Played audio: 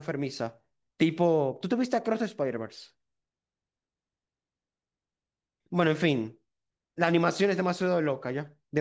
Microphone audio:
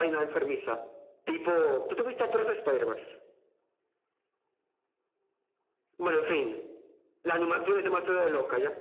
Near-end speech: none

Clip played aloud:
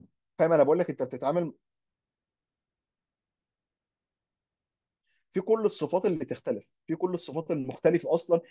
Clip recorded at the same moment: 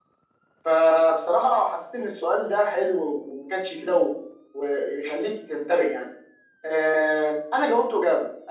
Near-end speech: present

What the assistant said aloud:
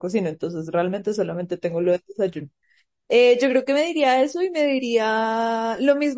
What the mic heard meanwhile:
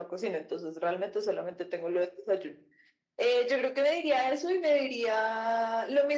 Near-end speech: none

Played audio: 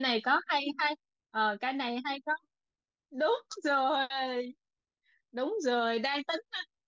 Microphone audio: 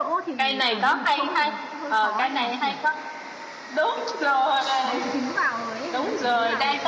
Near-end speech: present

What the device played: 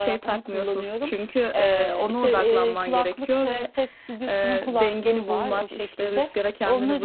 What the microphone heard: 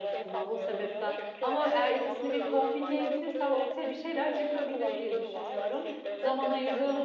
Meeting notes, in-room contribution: present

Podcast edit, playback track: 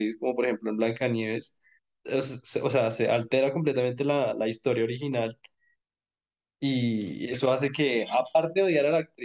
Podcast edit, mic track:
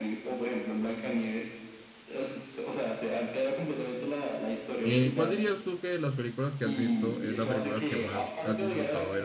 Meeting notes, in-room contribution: present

